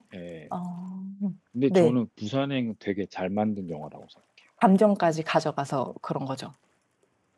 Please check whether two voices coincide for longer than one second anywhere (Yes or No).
No